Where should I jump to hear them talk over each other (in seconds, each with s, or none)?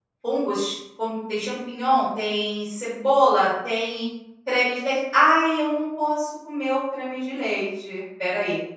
none